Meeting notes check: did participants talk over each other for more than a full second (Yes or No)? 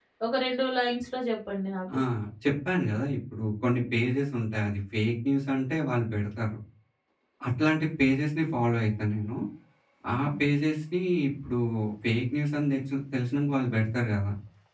No